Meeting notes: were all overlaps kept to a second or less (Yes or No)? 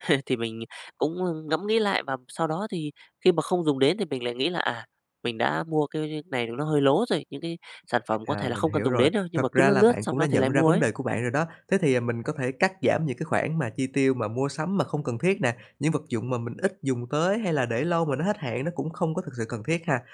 No